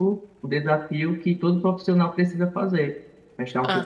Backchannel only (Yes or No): Yes